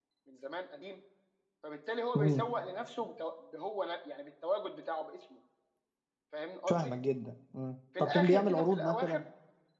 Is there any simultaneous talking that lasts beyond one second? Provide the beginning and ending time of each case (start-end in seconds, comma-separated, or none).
8.0-9.2